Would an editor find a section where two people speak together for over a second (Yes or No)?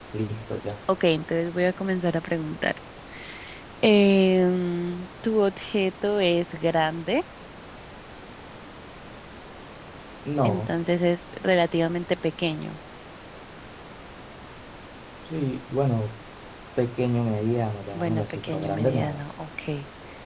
Yes